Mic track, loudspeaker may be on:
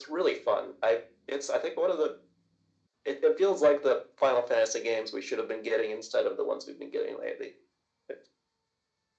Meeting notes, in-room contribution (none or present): none